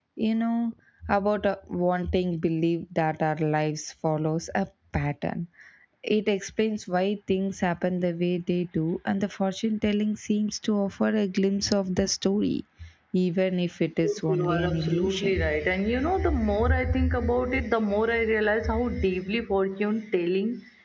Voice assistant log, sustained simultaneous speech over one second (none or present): present